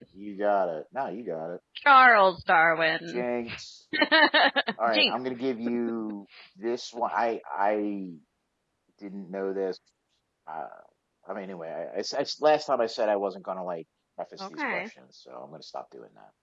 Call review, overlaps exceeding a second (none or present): none